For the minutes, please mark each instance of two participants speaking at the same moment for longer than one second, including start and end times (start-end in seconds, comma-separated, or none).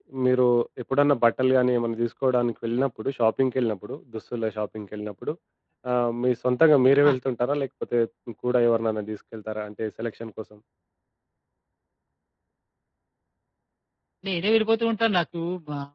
none